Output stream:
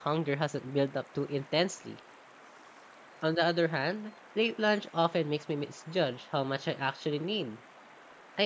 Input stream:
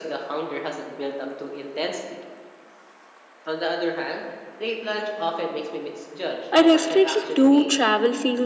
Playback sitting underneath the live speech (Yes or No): Yes